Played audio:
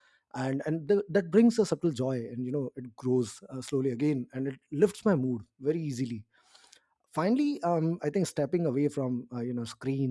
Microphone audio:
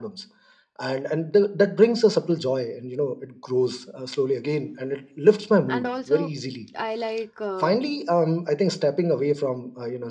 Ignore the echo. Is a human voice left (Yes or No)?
Yes